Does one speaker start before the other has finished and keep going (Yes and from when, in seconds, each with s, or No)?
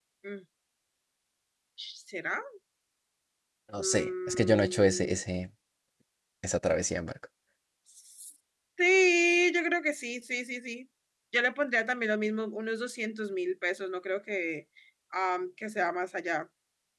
Yes, from 3.8 s